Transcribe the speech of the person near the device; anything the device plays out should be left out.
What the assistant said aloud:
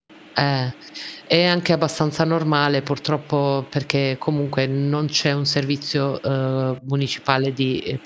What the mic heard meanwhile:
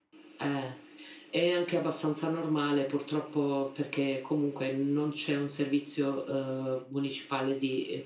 none

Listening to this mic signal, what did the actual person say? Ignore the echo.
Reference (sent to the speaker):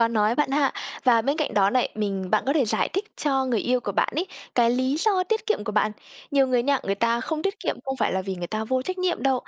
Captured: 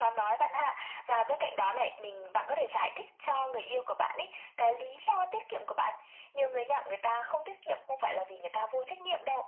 none

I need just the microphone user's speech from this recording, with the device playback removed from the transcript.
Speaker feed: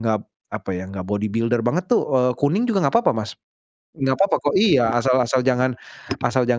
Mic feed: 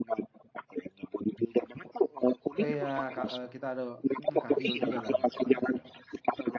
Eee, iya, Kak, eee, kita ada, mhm, kardio juga lah gitu, ya kan.

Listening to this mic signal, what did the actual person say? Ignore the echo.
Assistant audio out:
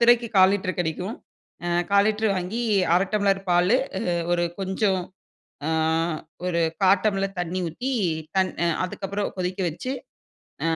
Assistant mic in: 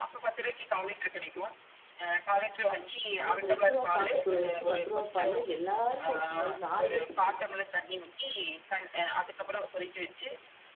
ஆனா அந்த ரூ 2 காப்பி தூள வச்சு ரூ 10 பால்லா எல்லாருக்கும், அது 4 பேத்துக்கு,

